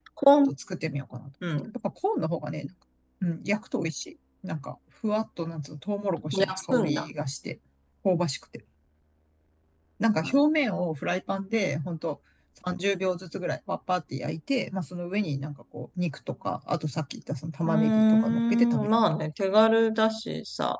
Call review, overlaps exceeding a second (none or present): present